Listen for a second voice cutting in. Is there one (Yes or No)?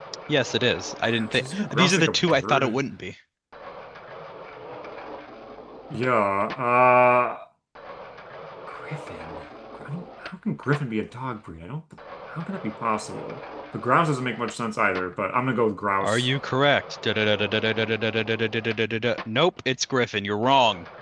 Yes